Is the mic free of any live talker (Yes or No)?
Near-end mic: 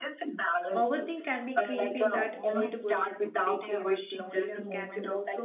No